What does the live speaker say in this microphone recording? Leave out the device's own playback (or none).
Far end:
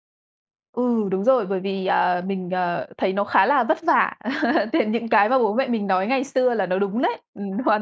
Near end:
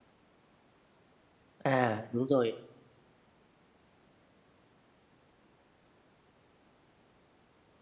À, đúng rồi.